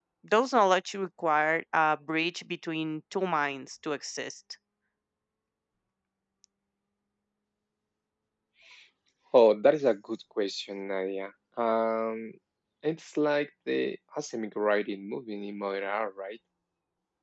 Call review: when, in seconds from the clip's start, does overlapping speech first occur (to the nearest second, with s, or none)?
none